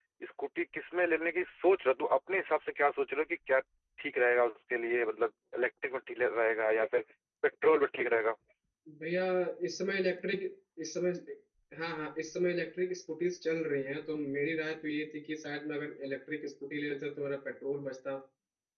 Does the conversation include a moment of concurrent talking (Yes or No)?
No